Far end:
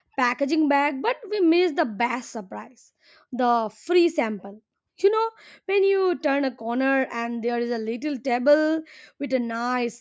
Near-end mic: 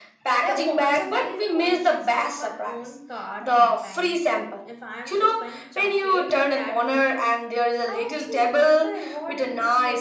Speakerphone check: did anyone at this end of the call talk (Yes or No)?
Yes